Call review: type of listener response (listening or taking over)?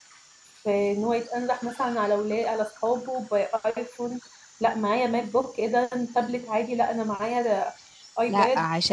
taking over